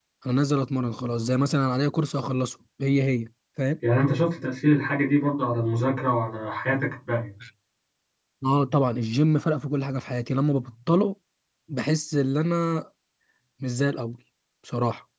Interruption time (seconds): none

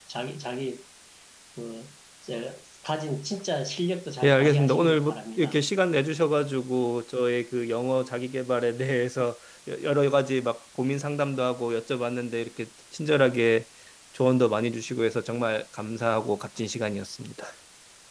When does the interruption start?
4.2 s

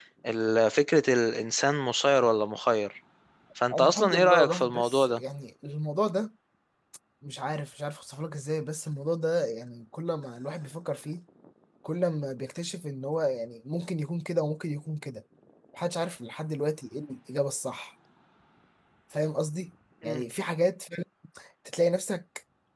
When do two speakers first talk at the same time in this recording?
3.7 s

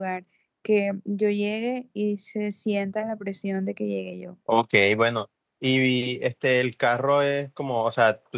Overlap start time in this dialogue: none

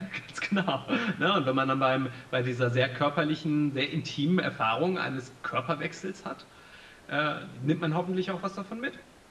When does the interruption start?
none

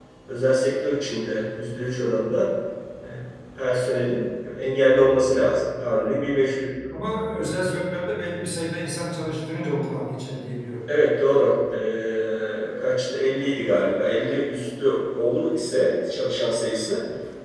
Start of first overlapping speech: none

